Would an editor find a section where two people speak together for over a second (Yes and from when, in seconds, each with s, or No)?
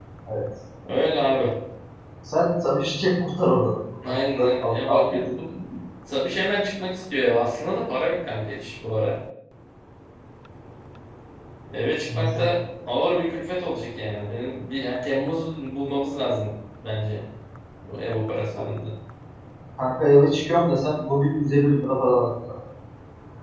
Yes, from 4.0 s